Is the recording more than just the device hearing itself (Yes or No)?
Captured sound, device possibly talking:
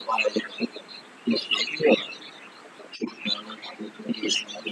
No